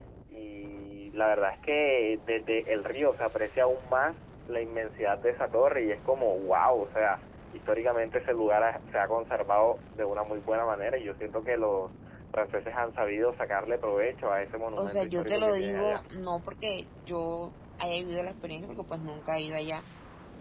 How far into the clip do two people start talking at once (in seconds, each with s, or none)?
14.8 s